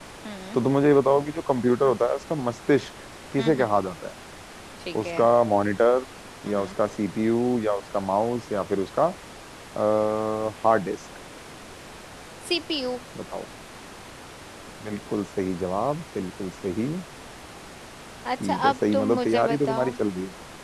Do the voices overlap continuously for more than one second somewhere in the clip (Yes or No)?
Yes